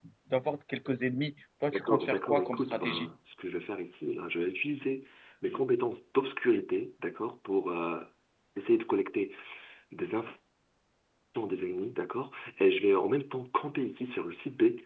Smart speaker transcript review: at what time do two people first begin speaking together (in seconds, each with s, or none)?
1.7 s